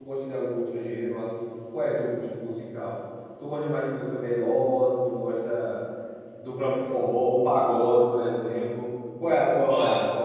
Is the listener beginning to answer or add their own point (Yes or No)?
Yes